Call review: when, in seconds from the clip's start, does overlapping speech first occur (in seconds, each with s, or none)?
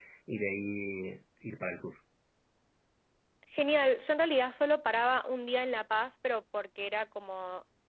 none